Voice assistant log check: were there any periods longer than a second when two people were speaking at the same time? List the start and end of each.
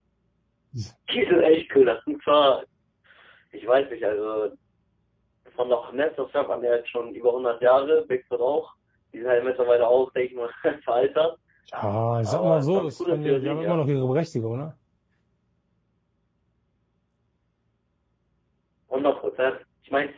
12.2-13.8

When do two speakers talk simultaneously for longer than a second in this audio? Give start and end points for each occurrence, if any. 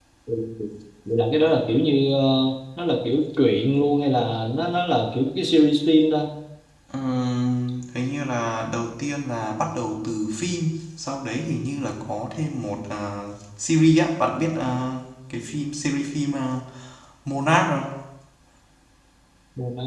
none

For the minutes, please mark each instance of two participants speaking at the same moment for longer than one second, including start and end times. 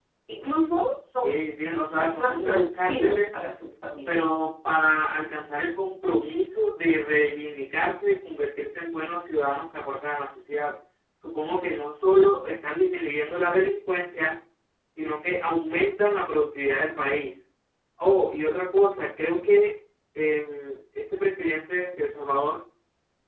2.0-3.4

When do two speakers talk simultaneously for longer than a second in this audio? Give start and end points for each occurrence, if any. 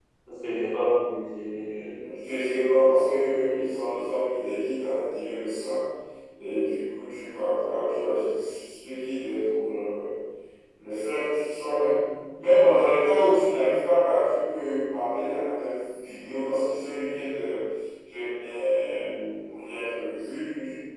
none

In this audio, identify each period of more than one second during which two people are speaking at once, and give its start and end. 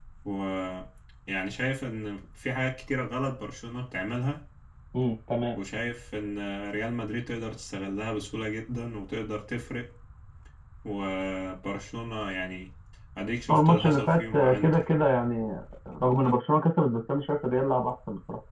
13.5-14.7

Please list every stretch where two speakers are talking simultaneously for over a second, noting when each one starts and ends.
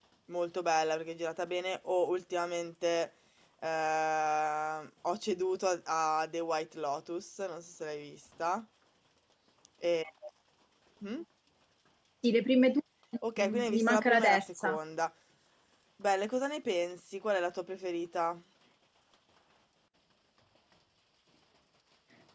13.4-14.8

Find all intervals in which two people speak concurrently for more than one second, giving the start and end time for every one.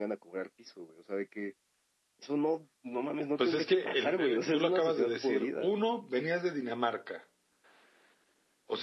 3.4-5.7

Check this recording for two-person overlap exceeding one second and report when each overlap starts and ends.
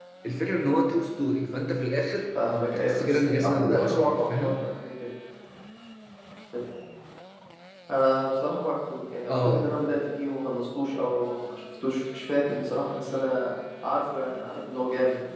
2.8-4.5

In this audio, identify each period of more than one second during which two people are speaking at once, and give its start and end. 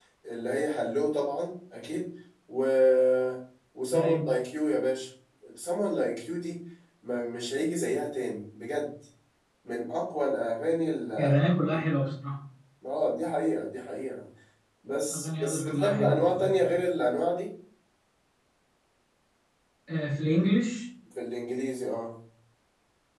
15.1-16.5

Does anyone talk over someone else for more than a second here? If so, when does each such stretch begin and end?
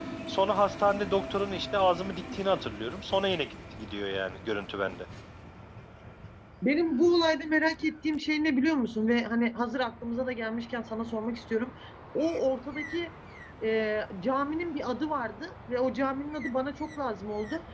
none

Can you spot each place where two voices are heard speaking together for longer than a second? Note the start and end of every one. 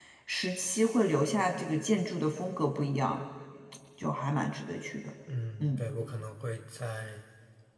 none

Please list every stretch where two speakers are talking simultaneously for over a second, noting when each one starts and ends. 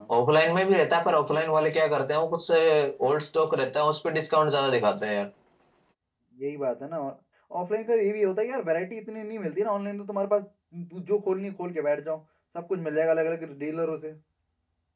none

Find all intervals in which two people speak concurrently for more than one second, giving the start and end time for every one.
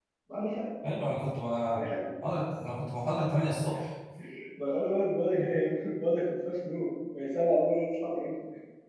none

